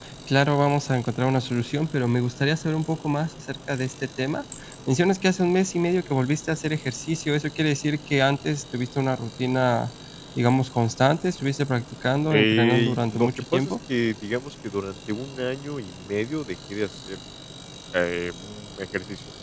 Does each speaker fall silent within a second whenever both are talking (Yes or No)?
No